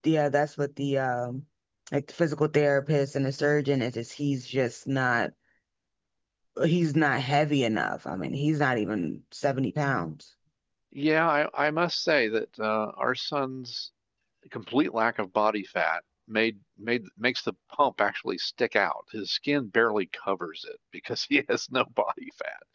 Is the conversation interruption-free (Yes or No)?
Yes